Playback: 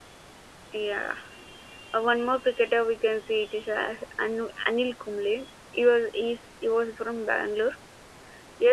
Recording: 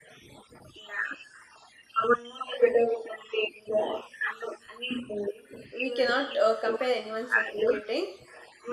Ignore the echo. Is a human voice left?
Yes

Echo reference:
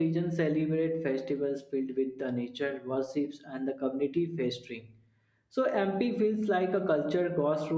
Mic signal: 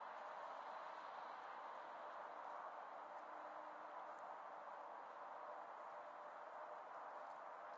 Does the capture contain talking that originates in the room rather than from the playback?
No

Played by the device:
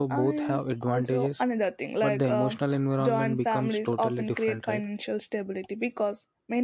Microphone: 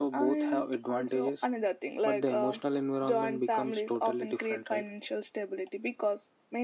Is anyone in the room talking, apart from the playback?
No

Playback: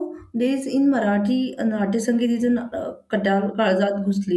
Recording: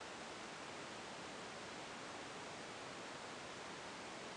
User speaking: No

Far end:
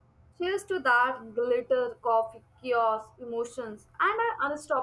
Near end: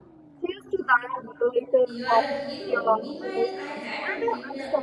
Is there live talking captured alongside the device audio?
Yes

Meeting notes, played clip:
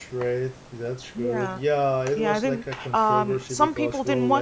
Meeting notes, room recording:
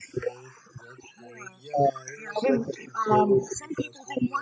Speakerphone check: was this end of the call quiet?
Yes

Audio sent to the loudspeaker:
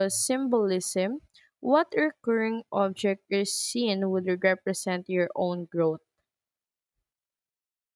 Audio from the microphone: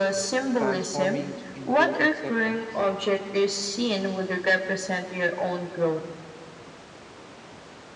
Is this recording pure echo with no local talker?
No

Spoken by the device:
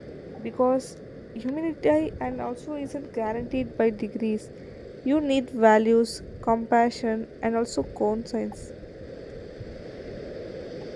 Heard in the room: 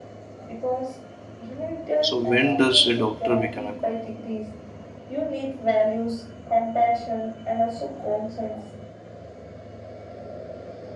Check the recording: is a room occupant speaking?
Yes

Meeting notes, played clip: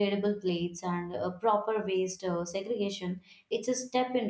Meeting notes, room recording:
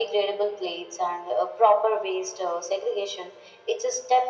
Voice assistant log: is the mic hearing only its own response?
Yes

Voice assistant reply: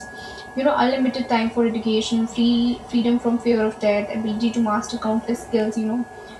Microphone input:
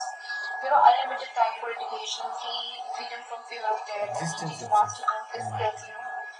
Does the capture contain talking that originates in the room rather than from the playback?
Yes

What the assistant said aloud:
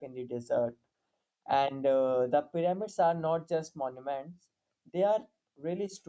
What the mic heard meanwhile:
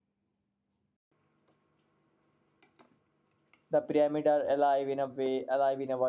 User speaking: Yes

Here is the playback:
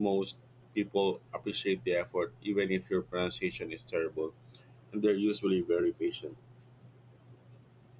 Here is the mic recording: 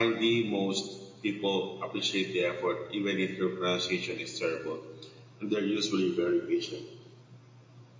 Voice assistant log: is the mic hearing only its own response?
Yes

